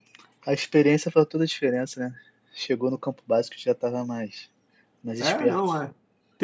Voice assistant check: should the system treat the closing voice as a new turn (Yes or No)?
Yes